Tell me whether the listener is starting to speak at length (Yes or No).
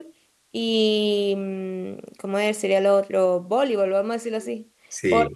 No